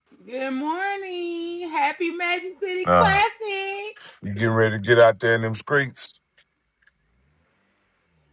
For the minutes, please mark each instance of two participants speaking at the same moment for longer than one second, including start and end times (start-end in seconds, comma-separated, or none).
none